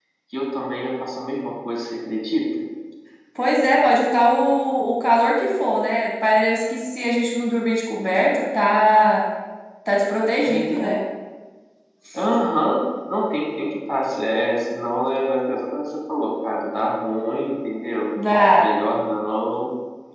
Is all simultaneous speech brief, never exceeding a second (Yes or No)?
Yes